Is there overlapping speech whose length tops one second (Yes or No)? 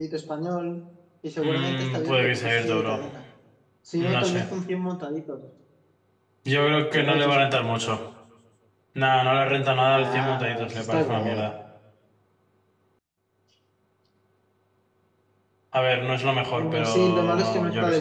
Yes